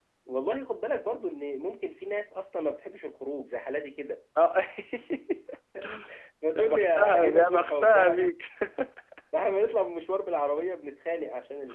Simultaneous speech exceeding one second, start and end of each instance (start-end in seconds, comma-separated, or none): 6.5-8.2